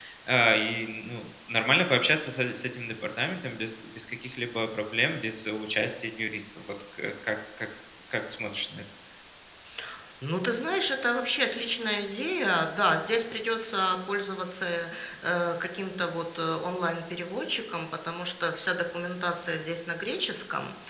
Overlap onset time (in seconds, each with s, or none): none